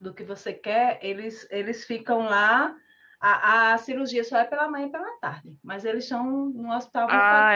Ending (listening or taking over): taking over